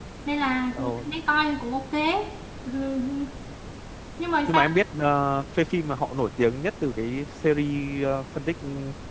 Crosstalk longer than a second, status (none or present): none